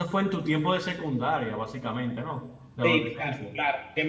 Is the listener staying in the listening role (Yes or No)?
No